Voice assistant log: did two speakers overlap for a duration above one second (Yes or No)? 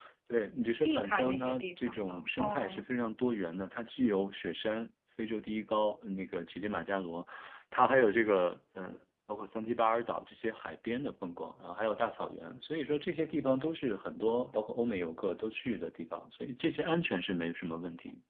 Yes